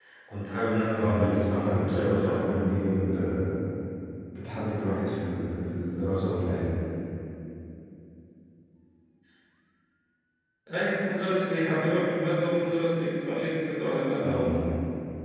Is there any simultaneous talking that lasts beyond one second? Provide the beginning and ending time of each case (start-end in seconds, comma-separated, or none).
1.0-2.5